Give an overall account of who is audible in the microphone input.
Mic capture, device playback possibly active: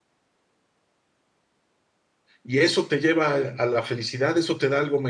user only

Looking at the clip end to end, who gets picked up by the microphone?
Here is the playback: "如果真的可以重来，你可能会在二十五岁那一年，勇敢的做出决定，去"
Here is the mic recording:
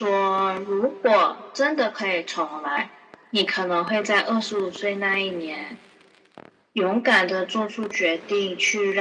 echo only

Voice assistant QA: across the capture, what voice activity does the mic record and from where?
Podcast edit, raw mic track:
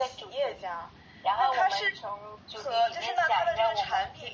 echo only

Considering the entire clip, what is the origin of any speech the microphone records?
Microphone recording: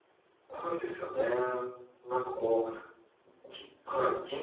user only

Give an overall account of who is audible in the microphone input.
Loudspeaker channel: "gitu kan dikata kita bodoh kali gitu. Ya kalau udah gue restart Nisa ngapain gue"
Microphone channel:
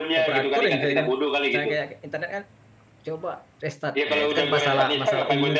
both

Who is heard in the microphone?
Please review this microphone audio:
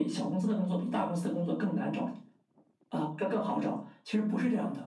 echo only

